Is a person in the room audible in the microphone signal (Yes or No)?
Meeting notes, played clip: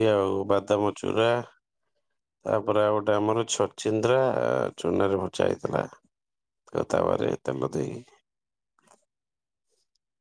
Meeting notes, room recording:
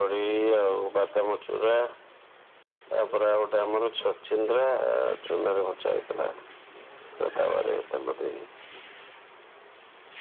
No